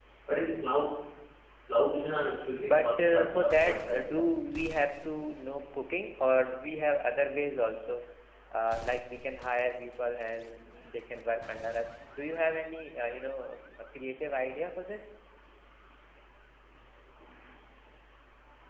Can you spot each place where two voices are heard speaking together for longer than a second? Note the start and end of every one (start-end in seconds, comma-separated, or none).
2.6-4.0